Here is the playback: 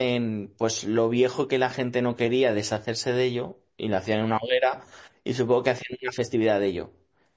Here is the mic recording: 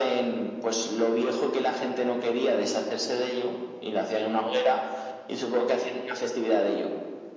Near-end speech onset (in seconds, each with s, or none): none